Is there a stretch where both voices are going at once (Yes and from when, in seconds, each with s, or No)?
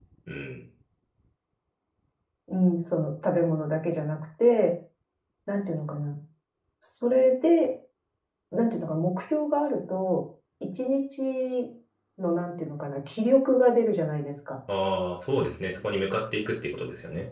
No